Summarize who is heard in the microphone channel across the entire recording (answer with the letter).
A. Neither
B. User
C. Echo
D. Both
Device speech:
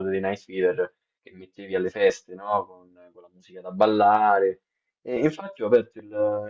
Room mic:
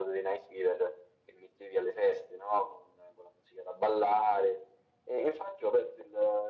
C